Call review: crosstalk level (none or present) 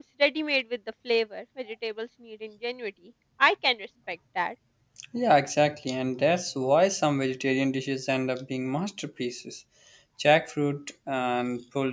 none